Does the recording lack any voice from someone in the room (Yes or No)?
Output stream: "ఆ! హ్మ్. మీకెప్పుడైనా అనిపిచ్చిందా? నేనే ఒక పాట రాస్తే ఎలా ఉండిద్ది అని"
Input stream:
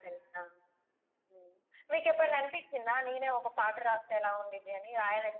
Yes